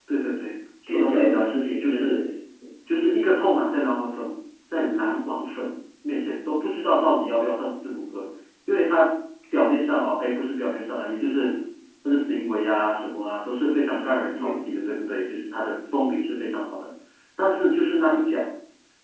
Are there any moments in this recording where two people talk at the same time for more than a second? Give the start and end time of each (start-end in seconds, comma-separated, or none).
0.9-2.2